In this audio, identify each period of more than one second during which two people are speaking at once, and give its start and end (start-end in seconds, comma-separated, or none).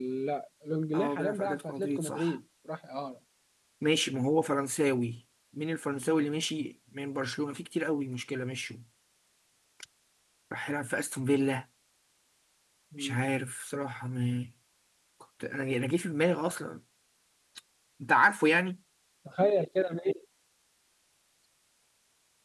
0.9-2.4